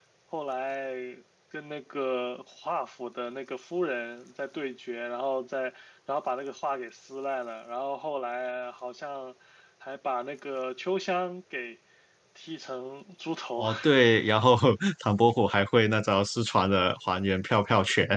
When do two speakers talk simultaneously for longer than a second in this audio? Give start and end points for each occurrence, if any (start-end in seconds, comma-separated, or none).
none